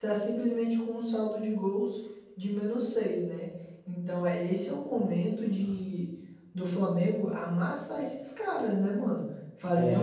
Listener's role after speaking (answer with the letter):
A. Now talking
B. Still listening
B